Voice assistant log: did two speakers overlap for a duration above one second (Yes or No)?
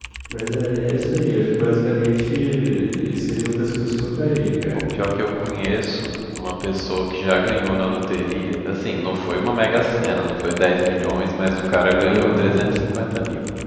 No